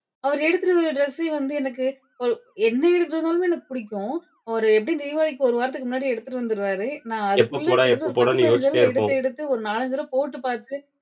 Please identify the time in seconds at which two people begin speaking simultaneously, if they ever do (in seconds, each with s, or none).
7.4 s